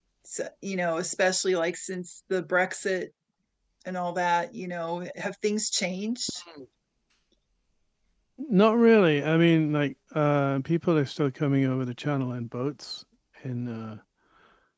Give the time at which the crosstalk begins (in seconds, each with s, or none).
none